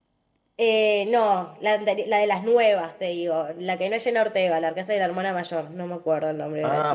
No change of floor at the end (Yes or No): No